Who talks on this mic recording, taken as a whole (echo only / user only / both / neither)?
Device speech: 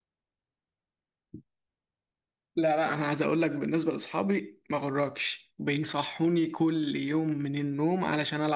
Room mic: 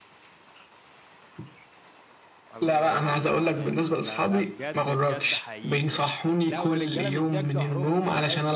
both